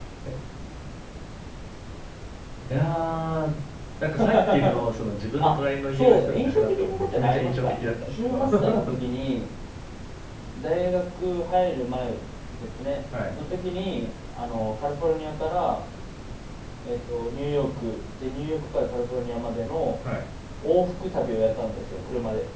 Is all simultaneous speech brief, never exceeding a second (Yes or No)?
No